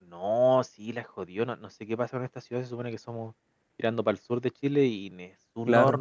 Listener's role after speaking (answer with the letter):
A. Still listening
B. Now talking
A